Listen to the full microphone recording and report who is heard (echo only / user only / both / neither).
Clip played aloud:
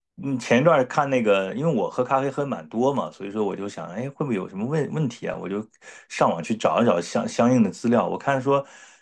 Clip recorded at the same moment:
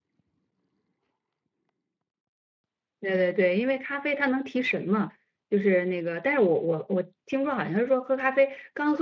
user only